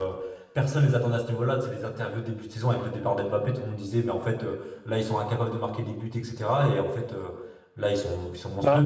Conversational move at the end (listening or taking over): listening